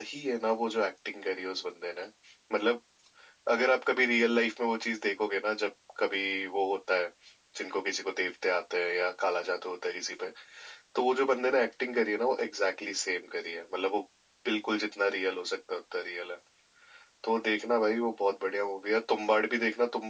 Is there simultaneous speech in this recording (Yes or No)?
No